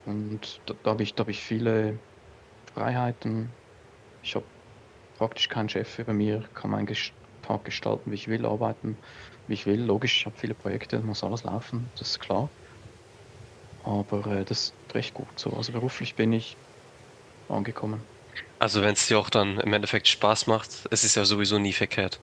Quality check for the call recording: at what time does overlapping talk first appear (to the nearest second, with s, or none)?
none